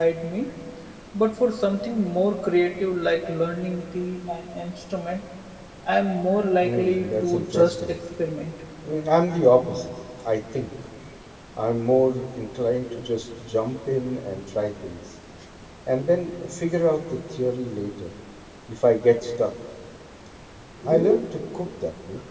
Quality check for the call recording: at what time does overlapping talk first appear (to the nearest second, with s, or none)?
7 s